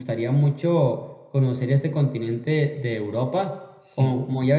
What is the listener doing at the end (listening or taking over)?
listening